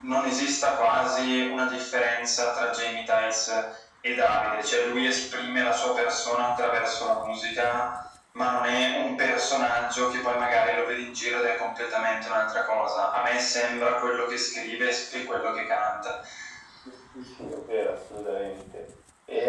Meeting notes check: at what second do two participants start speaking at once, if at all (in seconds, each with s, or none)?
none